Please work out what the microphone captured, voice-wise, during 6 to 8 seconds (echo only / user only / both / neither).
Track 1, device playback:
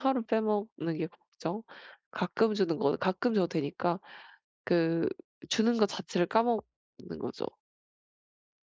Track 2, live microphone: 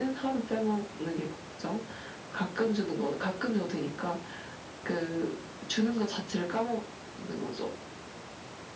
echo only